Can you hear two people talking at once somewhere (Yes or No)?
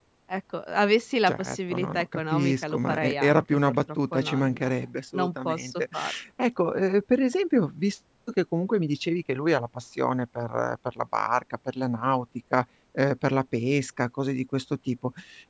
Yes